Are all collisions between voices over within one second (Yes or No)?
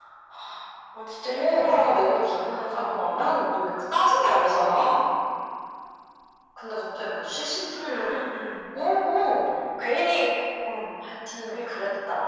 No